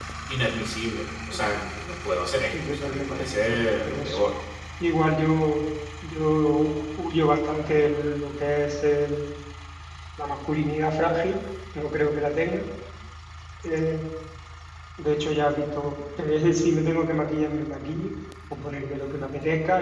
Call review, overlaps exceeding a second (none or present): present